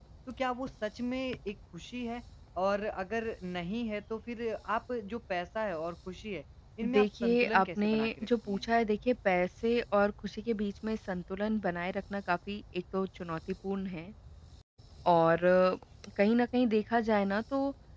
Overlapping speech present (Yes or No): Yes